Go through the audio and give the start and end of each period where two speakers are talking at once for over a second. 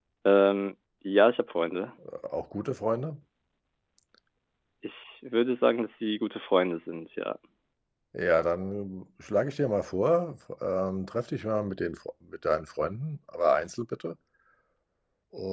none

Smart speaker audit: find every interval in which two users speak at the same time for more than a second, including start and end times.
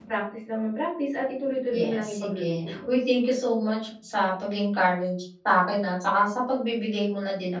1.7-2.9

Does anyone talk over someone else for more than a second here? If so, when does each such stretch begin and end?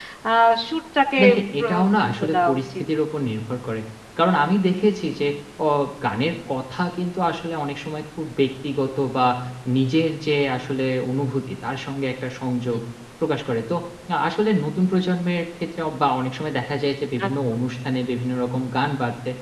1.6-2.8

